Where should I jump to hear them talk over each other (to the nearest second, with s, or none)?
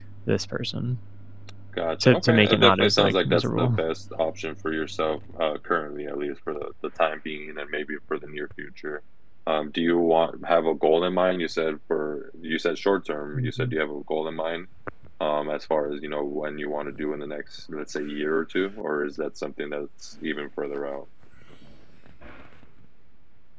2 s